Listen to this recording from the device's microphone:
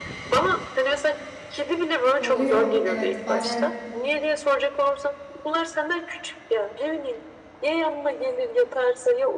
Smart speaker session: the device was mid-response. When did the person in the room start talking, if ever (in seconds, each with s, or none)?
2.2 s